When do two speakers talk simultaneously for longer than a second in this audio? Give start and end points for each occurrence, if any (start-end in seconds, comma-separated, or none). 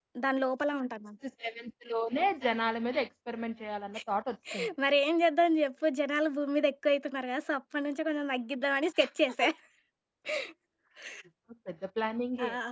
none